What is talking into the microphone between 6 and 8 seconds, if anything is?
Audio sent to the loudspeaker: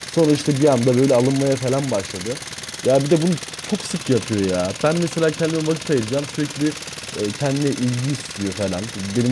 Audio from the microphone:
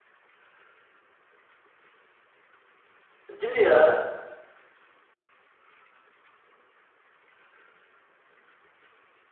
neither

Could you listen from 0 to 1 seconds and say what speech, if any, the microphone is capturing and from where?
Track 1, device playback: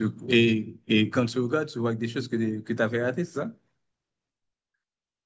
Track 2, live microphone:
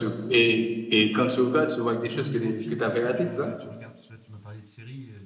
echo only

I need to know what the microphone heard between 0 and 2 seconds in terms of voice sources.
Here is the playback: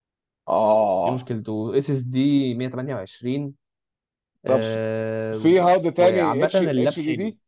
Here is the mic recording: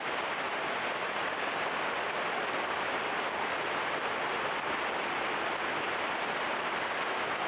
neither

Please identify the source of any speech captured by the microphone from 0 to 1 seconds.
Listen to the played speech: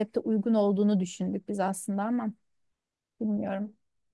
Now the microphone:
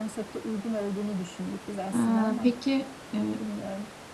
echo only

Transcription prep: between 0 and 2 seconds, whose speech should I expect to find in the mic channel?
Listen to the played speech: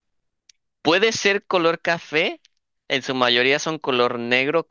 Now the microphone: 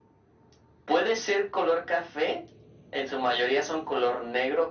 echo only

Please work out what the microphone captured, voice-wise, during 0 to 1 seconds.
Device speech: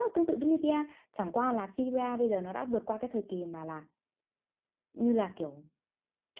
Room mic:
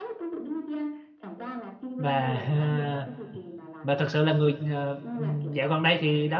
echo only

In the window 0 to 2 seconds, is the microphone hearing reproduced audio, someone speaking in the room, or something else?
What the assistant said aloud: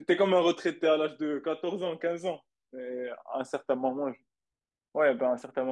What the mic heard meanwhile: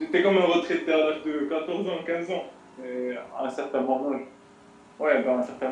echo only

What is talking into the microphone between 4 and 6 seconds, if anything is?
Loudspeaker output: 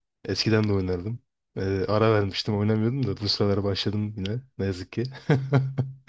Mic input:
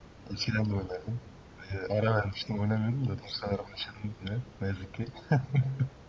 echo only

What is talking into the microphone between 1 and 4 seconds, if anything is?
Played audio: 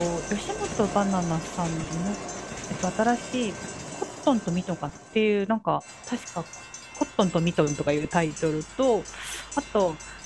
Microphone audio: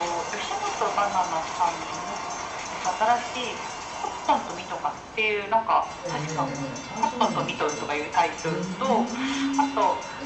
echo only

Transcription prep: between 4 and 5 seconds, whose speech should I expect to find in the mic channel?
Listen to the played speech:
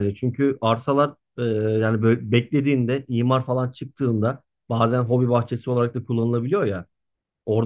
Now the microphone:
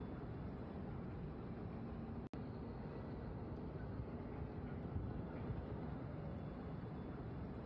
neither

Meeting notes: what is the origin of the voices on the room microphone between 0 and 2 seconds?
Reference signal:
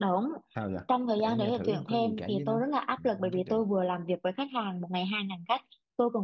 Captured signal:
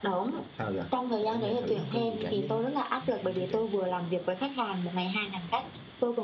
echo only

